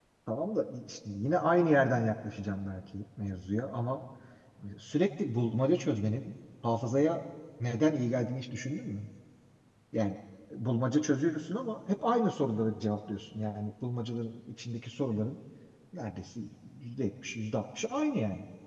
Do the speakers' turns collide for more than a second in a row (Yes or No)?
No